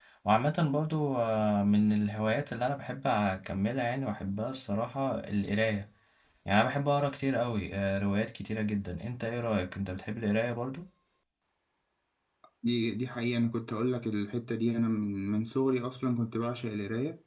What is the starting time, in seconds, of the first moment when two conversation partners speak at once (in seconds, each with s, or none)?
none